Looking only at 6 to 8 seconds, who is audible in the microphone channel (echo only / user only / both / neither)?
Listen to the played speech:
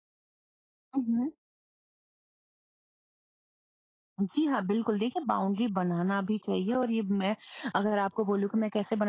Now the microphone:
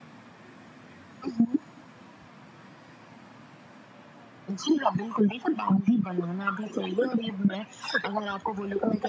echo only